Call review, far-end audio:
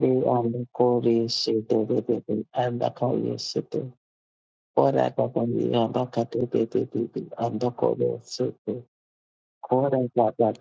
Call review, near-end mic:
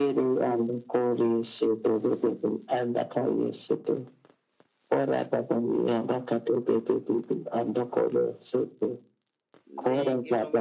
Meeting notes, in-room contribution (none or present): present